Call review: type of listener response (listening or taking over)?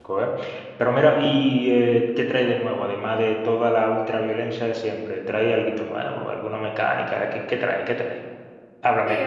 taking over